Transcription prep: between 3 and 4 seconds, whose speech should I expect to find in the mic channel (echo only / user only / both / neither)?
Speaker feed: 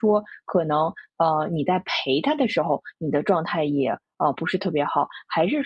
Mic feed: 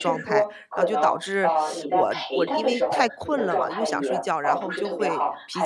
both